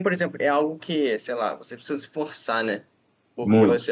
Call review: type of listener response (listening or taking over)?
listening